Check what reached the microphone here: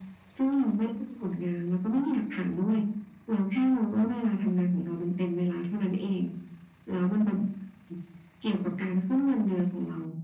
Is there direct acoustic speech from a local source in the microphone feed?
No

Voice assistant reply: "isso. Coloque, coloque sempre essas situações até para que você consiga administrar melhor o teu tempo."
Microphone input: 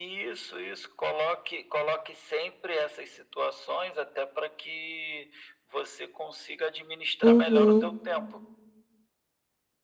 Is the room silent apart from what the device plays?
No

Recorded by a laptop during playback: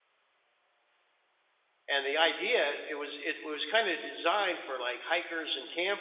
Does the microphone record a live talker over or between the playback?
Yes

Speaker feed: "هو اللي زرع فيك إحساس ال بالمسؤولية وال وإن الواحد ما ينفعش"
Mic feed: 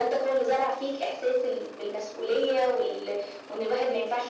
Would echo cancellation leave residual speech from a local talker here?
No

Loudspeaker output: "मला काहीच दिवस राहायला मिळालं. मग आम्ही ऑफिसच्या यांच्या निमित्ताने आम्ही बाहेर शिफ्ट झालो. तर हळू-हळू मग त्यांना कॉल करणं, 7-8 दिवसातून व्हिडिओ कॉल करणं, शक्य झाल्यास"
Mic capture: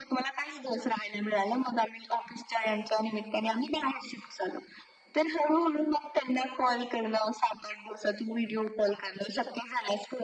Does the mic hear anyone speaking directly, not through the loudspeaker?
No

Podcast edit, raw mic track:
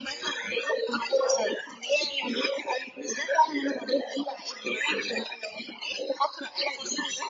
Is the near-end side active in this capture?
No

